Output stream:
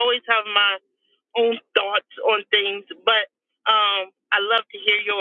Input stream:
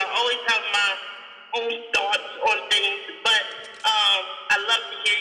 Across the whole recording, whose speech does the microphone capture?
echo only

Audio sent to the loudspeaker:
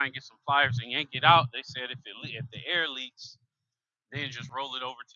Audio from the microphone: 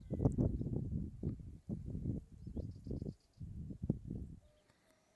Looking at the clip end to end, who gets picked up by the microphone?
neither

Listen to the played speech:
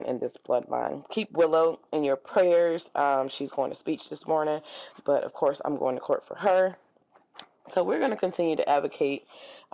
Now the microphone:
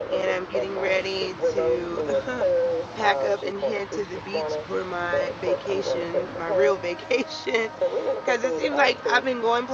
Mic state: both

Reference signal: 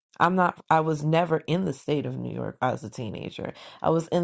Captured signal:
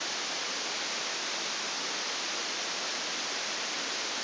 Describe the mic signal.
neither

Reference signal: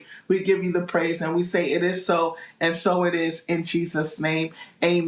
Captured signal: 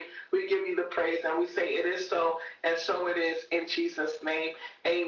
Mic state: echo only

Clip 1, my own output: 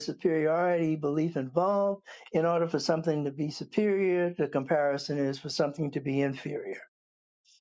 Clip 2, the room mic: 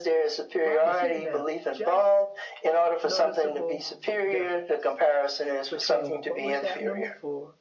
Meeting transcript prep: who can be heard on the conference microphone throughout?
both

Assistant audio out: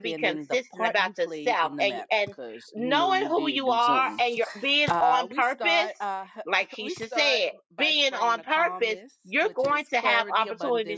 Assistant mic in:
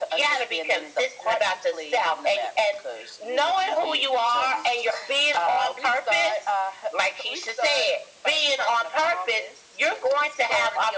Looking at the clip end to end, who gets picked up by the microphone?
echo only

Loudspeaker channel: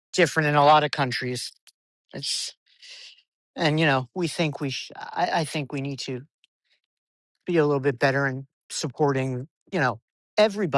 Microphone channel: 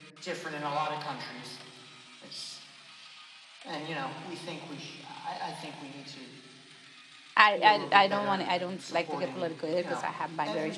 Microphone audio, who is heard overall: both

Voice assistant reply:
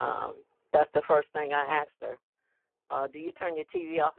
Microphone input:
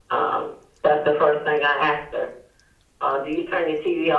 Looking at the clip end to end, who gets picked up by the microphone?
echo only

